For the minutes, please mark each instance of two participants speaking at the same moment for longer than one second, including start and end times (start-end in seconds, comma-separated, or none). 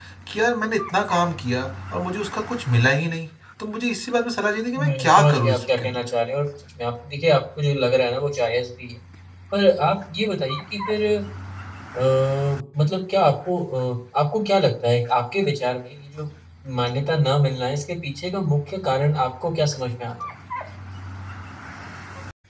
4.8-6.0